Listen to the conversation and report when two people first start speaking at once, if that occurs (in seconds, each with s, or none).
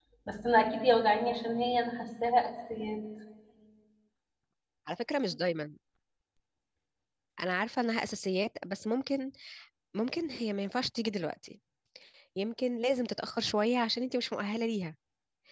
none